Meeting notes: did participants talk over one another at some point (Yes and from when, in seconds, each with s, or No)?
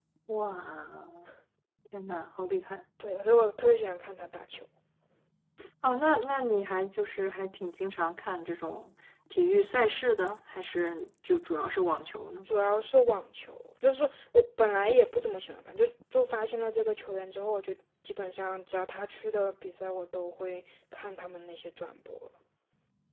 No